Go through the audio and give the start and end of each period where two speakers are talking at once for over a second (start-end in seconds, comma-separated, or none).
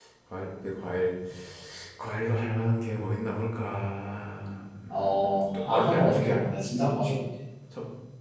5.2-6.5